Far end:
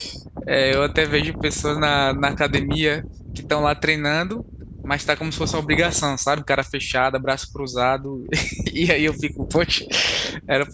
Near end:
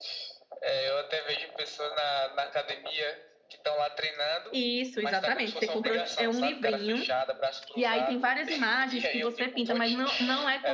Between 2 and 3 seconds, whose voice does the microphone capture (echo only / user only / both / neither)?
echo only